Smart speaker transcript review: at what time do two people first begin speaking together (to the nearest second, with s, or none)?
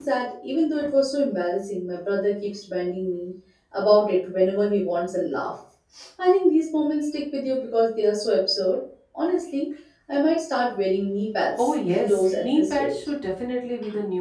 12 s